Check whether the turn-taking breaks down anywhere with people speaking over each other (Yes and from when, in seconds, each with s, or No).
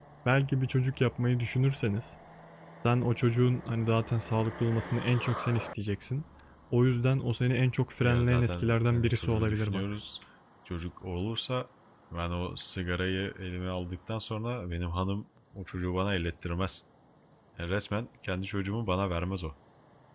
Yes, from 8.0 s